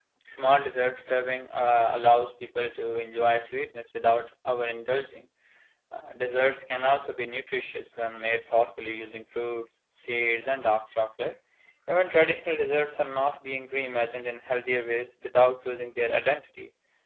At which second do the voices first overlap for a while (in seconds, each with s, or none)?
none